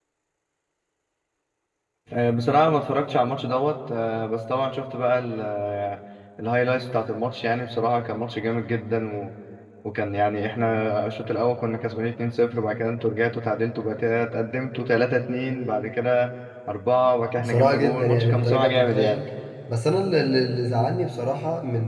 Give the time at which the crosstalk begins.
17.4 s

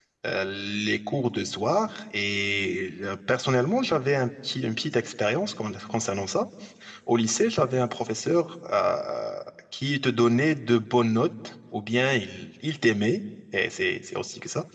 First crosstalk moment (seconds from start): none

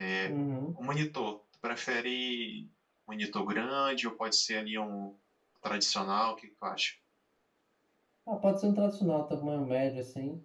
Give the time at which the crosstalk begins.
none

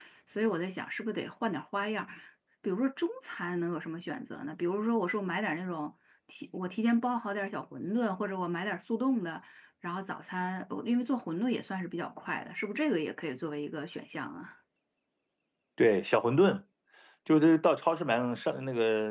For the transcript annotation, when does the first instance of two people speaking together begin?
none

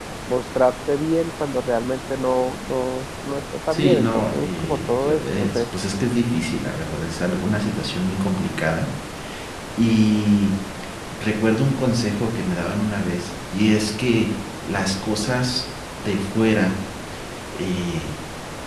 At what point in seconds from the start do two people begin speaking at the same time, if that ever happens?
3.7 s

